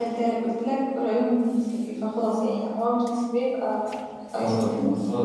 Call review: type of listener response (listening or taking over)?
taking over